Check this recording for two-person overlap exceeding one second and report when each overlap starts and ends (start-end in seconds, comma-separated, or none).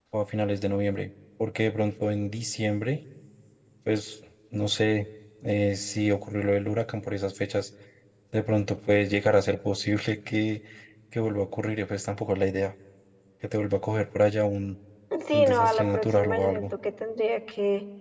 15.3-16.7